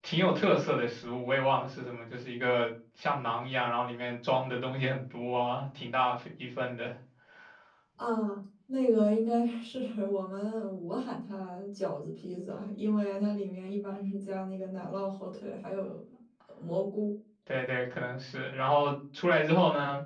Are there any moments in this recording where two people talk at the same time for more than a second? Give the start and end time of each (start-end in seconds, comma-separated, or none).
none